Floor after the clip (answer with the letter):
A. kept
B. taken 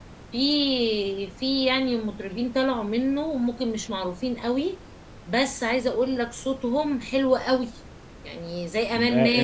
B